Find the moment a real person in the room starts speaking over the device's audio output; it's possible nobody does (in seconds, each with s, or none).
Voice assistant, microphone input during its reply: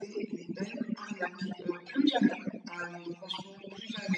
none